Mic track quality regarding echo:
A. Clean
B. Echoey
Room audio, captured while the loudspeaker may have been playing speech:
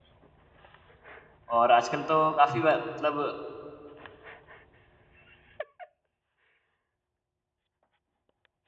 A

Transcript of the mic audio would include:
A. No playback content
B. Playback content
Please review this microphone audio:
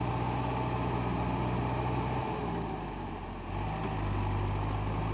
A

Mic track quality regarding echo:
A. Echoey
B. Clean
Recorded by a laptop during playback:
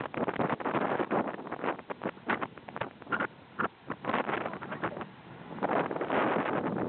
B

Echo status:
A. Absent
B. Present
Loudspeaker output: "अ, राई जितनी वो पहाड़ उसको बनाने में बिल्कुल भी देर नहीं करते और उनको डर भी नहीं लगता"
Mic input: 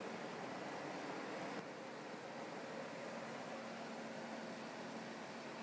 A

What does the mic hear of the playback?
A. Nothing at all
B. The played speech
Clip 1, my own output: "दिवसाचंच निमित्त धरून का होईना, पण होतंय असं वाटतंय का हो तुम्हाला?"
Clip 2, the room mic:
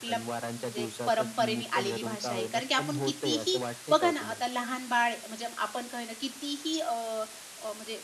B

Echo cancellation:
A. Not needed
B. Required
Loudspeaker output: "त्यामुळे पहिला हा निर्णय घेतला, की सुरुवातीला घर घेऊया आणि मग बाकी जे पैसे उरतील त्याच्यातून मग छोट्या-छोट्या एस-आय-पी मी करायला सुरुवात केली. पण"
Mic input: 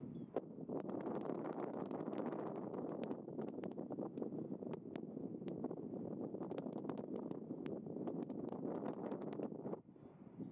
A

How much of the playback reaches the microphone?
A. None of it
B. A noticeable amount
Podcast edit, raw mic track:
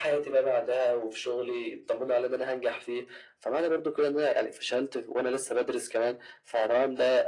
B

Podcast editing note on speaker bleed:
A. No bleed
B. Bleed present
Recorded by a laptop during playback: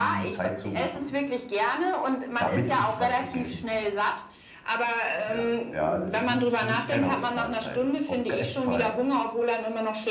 B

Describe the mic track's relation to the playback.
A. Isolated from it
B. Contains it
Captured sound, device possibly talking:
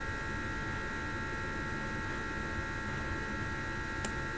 A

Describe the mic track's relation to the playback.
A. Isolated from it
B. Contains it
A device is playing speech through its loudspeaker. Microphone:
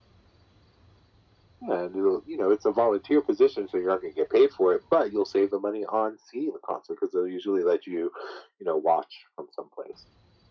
B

